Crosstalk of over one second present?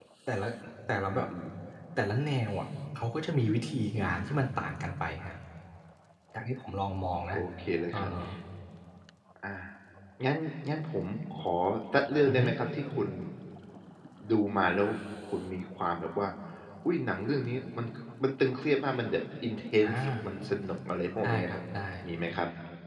No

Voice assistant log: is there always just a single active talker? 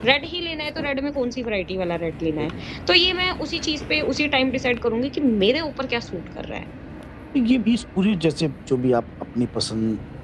Yes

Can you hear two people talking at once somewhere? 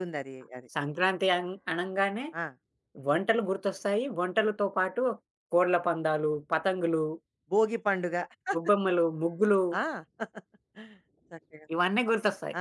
No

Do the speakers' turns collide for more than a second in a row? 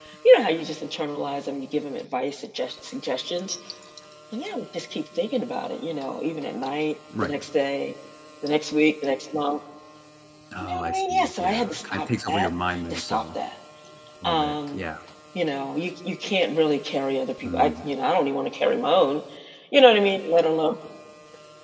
Yes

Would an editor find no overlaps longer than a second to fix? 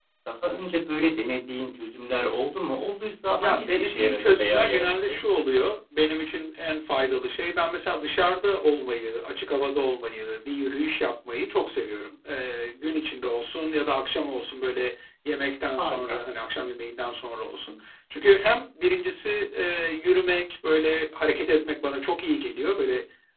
No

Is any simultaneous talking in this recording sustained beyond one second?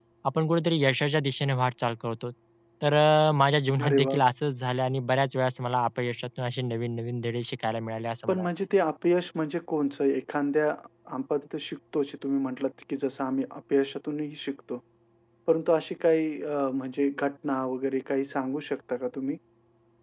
No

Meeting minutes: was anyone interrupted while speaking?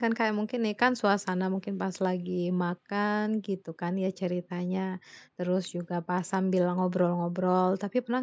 No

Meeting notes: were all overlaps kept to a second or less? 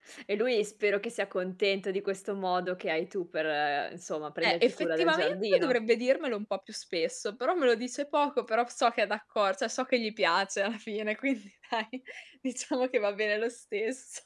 No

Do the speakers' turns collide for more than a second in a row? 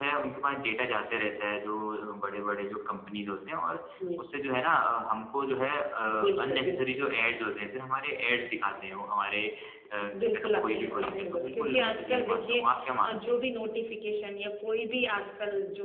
Yes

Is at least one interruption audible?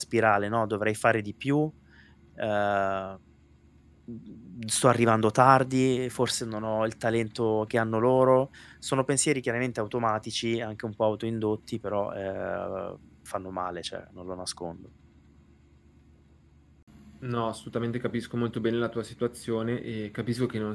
No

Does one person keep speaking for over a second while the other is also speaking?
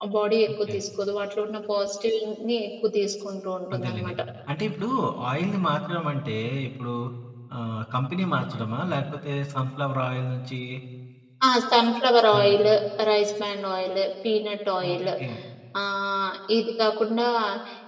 No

